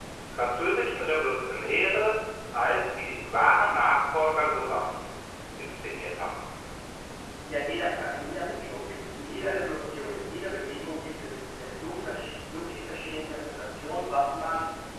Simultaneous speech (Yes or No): No